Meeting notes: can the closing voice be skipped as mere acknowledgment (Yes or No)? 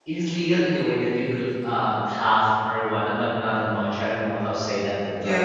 No